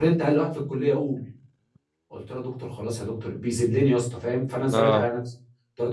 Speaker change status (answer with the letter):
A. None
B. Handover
A